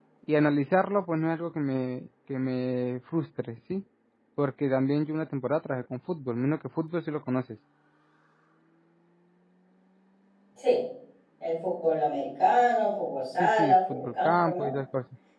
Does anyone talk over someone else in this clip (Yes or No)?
Yes